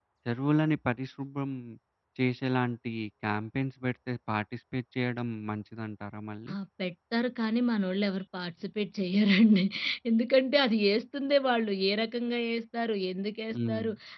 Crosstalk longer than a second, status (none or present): none